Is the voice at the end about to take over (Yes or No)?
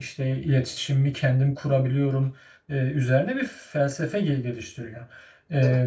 No